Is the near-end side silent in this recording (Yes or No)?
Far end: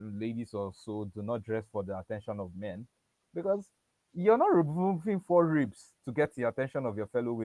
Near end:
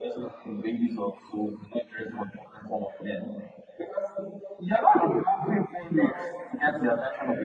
Yes